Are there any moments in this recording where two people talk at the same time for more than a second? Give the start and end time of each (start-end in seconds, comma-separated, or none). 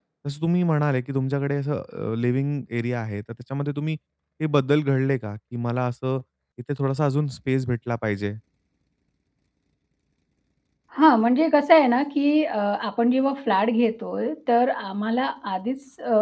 none